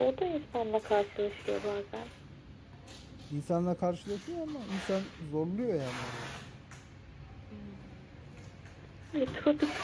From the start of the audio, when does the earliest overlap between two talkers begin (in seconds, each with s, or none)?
none